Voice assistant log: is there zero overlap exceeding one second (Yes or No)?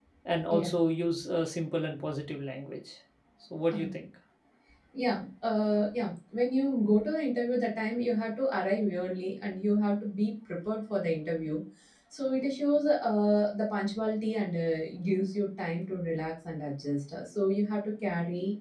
Yes